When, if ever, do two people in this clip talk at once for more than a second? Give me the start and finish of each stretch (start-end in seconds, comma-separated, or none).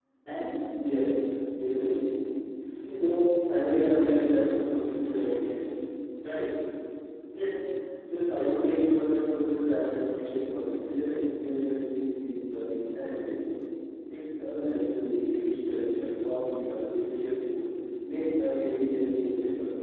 none